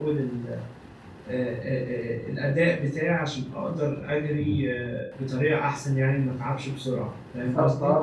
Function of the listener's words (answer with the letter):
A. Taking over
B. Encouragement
A